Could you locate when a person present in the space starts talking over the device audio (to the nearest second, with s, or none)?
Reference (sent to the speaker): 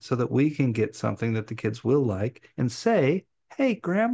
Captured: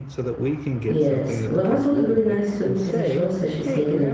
1 s